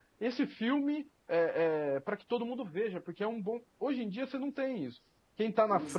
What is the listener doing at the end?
taking over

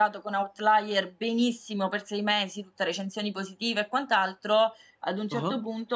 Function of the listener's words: listening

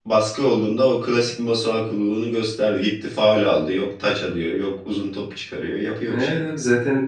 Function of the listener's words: taking over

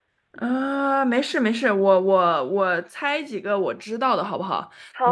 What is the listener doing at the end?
taking over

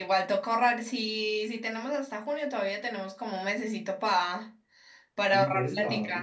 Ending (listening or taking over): taking over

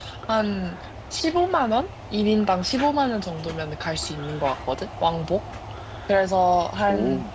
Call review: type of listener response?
listening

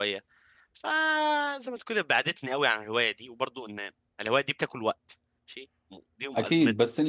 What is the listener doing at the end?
taking over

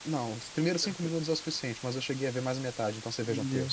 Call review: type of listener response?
taking over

